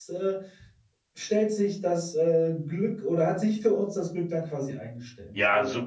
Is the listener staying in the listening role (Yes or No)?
No